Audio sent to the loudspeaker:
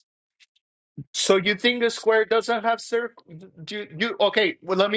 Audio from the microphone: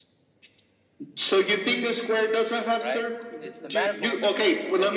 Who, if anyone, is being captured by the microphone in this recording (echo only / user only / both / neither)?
both